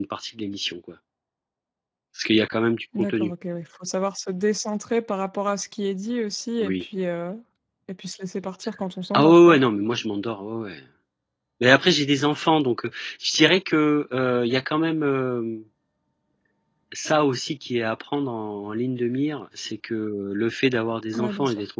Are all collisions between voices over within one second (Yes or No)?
Yes